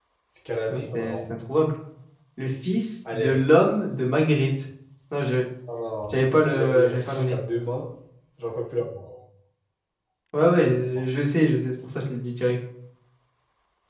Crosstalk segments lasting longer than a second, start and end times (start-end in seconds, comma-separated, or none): 6.1-7.4